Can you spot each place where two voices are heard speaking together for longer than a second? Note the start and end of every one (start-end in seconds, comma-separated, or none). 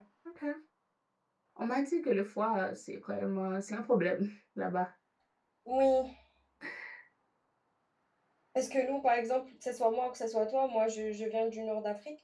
none